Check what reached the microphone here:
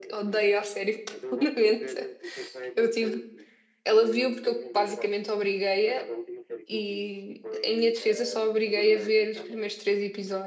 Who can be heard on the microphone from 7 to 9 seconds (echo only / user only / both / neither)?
both